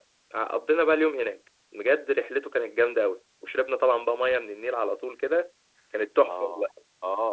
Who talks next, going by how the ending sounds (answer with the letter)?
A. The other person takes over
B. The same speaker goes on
A